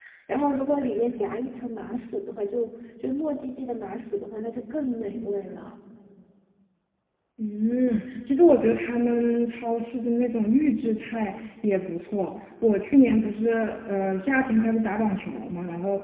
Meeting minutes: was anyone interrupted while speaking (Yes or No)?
No